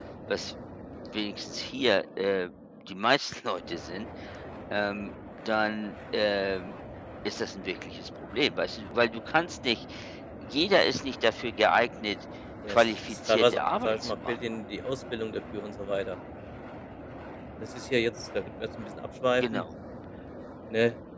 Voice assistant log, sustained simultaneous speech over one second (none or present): present